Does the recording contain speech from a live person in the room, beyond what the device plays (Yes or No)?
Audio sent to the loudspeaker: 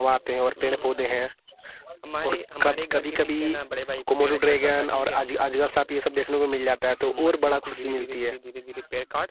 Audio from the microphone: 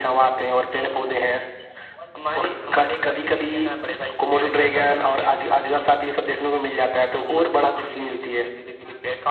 No